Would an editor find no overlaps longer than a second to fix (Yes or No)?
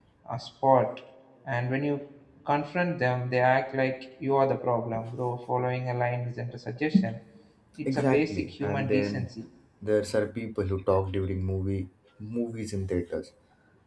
No